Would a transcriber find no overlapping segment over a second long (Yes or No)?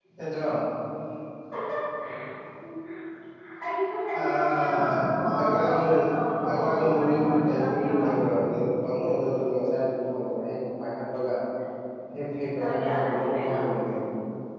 No